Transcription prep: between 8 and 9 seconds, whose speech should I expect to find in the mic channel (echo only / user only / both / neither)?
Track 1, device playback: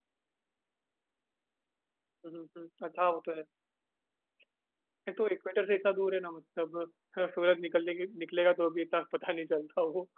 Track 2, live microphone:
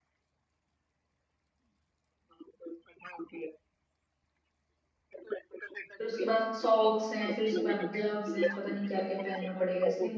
both